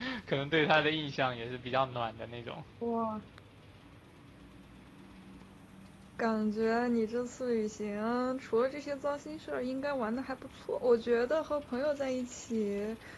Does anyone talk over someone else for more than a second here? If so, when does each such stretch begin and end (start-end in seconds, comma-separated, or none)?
none